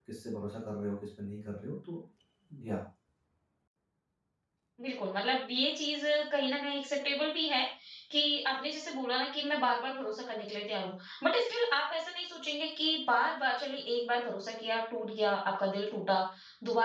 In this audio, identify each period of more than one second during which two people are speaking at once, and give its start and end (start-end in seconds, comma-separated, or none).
none